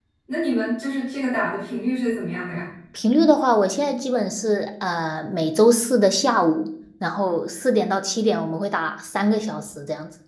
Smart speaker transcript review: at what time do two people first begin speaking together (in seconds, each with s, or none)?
none